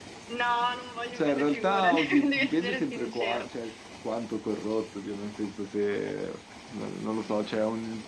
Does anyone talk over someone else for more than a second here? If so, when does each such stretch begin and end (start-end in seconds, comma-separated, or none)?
1.1-3.5